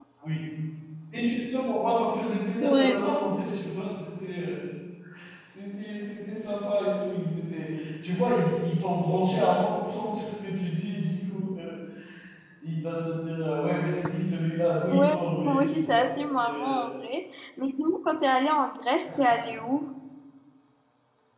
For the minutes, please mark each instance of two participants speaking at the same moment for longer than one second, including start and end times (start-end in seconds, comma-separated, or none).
14.9-16.9